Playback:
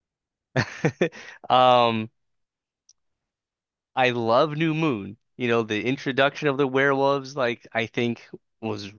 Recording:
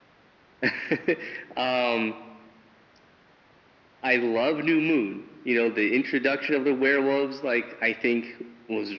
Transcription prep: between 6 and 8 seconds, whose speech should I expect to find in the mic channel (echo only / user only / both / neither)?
echo only